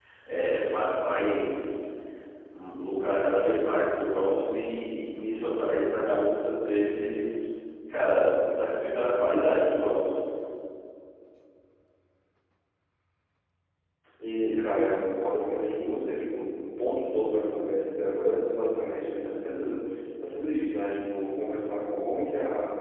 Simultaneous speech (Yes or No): No